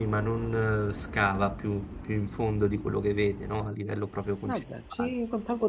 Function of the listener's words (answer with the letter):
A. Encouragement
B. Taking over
B